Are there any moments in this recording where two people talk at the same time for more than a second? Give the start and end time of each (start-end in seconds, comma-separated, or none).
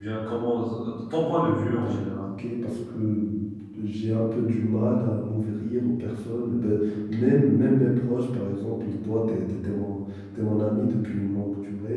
none